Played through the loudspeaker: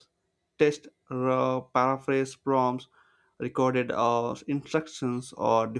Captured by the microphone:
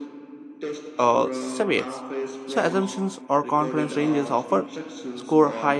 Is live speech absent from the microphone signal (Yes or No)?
No